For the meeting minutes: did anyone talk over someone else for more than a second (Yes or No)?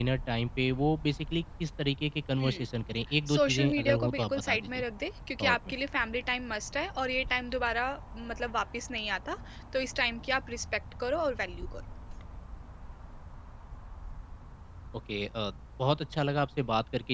Yes